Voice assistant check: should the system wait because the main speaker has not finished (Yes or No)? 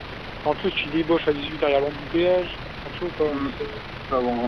No